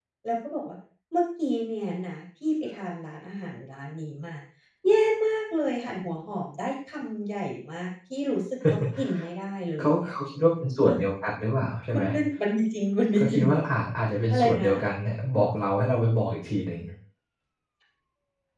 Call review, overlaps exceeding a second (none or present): none